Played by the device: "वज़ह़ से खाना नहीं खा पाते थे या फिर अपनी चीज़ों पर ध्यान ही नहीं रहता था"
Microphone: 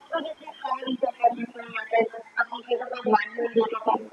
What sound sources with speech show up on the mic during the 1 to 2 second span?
echo only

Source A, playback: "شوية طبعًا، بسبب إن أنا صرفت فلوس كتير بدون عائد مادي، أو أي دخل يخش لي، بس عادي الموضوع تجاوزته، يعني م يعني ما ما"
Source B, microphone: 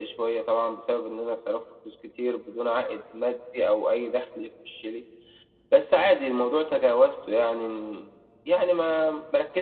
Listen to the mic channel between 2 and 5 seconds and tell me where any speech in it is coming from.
echo only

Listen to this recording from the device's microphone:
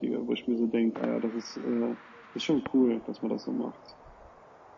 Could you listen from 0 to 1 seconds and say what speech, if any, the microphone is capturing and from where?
echo only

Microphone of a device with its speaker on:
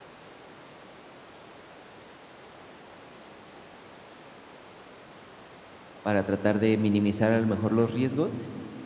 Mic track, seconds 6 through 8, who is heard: user only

